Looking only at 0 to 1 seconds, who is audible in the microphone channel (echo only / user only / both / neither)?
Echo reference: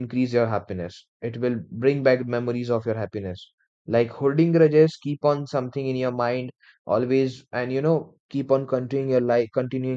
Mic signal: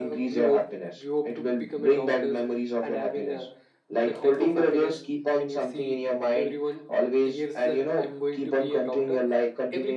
both